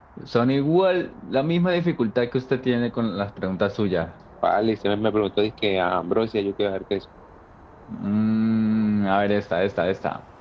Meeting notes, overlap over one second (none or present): none